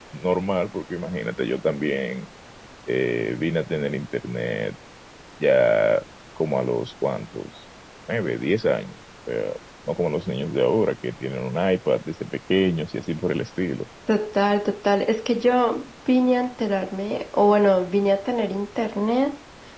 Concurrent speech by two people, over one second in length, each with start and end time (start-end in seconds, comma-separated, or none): none